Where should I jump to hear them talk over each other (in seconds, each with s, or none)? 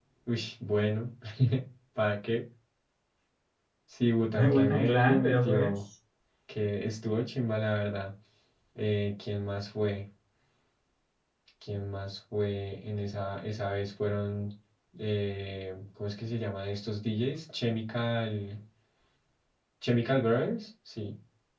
4.3 s